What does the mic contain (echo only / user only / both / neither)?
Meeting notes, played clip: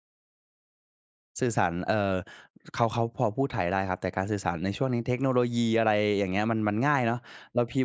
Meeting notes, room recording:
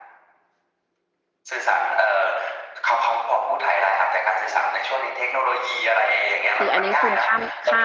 both